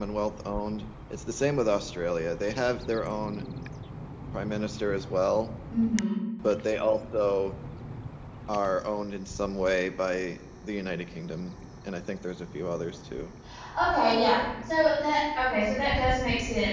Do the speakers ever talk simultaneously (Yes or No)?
No